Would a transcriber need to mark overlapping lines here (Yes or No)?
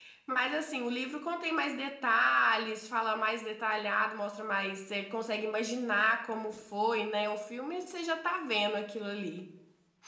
No